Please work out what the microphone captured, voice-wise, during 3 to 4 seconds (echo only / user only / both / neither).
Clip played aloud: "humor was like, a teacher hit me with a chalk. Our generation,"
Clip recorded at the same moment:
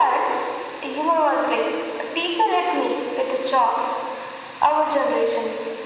echo only